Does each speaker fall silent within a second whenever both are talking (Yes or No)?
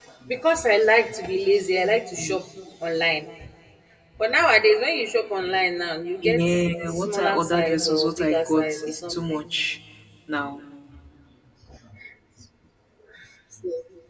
No